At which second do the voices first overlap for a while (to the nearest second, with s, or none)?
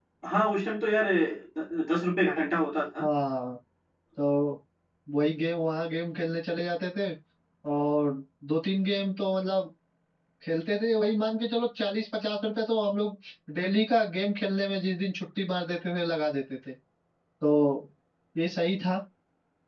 none